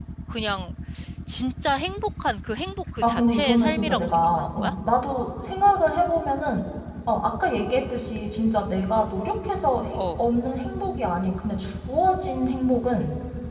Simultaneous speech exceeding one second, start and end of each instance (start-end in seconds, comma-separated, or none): 3.0-4.7